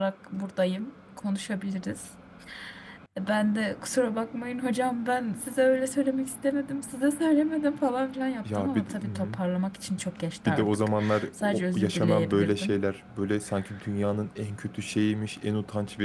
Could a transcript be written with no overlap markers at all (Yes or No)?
No